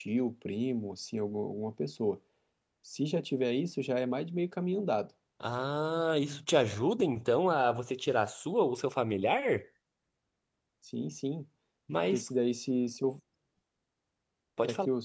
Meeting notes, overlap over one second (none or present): none